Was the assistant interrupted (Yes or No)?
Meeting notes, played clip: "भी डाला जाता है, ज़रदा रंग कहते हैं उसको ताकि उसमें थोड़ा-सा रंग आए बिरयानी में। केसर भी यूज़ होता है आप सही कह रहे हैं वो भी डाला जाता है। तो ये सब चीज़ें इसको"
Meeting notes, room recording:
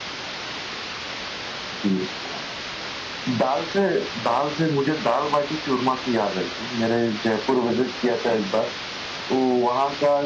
Yes